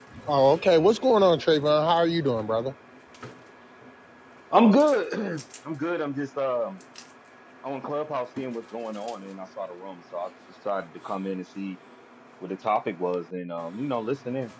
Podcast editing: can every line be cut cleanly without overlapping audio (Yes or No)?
Yes